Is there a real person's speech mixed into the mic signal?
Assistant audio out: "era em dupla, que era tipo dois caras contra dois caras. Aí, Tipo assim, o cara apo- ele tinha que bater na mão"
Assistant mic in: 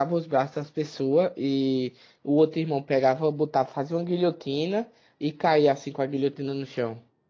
Yes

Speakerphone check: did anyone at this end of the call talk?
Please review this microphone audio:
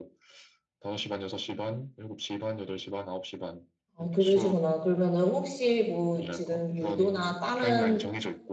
Yes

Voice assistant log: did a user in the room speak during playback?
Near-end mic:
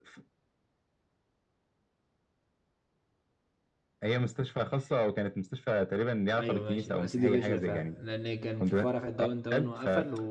Yes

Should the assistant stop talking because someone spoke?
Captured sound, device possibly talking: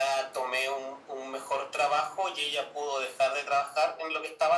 No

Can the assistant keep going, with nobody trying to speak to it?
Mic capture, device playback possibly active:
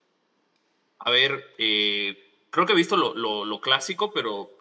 No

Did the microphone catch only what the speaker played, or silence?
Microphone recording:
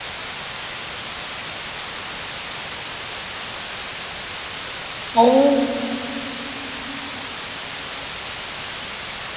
No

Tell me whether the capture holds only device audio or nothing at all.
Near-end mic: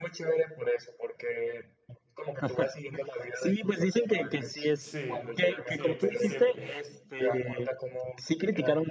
No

